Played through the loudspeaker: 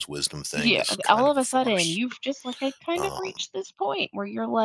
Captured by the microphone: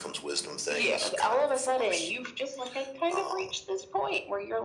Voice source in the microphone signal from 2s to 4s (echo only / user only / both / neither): echo only